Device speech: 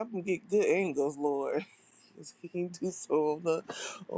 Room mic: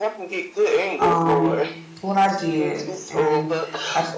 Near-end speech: present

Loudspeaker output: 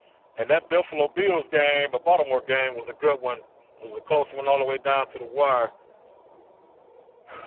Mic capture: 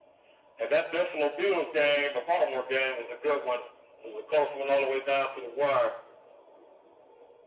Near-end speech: none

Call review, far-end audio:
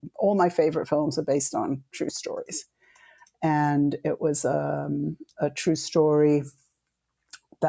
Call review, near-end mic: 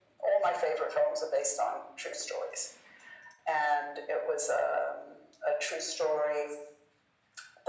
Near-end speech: none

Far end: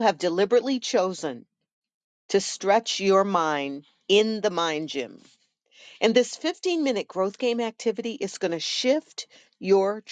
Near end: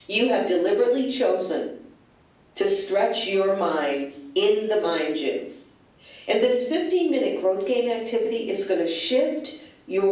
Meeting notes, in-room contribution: none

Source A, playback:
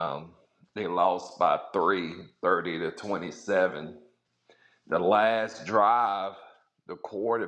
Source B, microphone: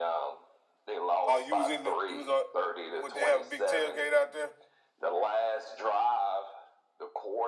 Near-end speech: present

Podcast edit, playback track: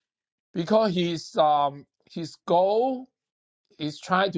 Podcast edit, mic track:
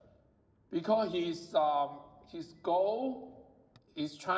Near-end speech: none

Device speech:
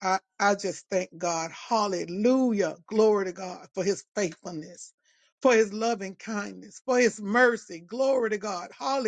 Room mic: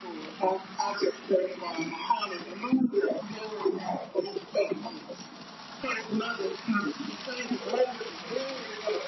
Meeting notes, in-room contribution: none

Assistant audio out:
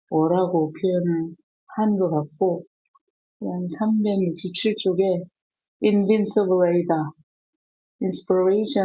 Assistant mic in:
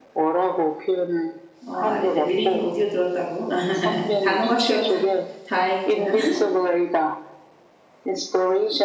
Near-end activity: present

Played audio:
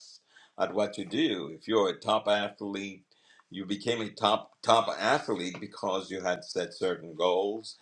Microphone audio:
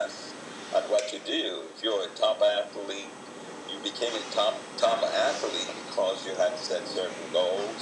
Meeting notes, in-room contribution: none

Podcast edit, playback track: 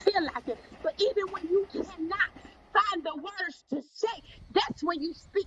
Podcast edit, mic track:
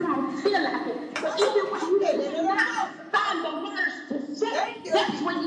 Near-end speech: present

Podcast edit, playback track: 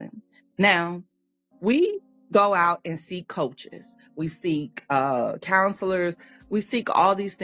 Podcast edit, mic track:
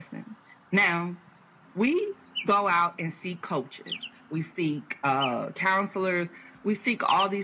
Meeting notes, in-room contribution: none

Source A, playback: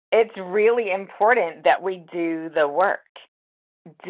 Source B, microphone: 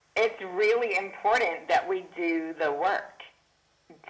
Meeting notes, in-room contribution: none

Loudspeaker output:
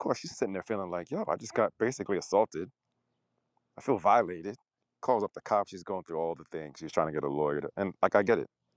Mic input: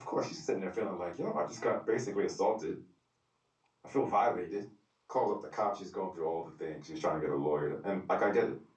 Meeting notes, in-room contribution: none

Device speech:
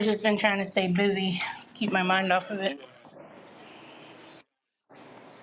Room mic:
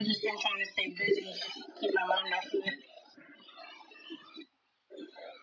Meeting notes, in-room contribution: none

